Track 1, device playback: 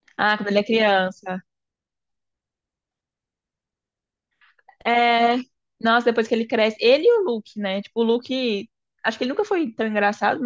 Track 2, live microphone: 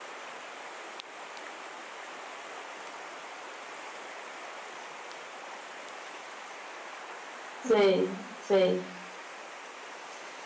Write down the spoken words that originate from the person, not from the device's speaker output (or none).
Sei, sei.